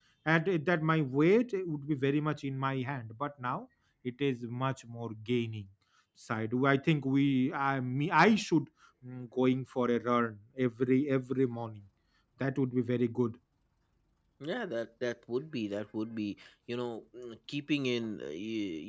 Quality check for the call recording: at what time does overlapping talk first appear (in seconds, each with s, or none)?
none